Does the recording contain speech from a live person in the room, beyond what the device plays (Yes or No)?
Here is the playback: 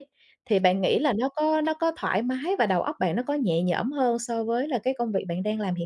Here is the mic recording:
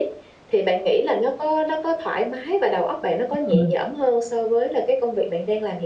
Yes